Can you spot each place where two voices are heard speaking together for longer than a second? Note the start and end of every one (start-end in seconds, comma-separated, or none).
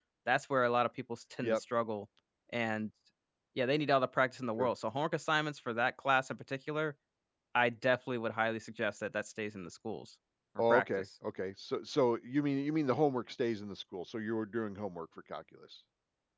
none